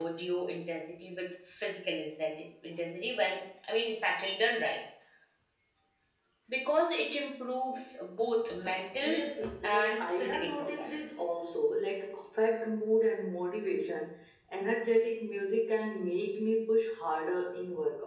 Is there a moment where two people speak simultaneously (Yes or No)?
Yes